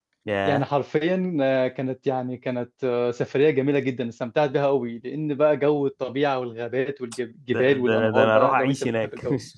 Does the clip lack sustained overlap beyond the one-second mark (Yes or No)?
No